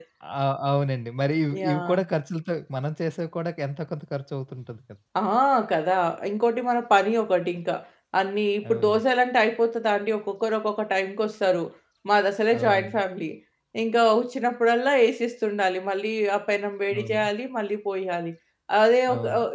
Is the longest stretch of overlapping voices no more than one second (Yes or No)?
Yes